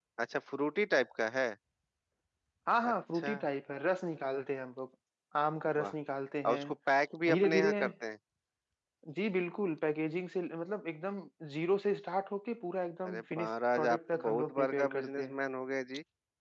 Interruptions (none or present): present